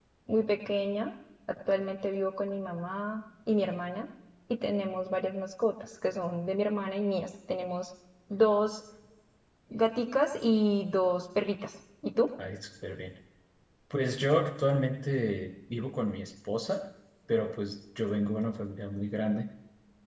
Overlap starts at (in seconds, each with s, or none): none